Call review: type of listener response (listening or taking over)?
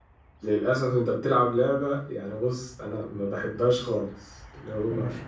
listening